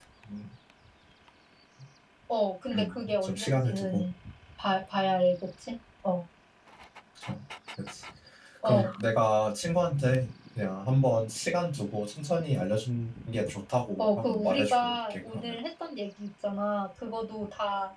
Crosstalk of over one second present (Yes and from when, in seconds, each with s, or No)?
Yes, from 2.7 s